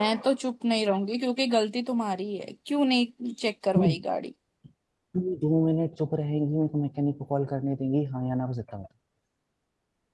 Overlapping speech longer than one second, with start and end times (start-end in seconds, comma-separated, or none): none